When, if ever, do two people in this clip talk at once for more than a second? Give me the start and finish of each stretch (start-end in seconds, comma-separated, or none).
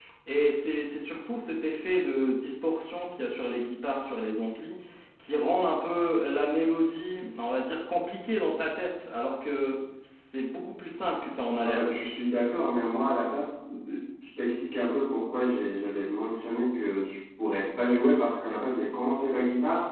none